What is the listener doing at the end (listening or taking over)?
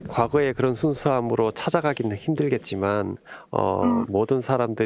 listening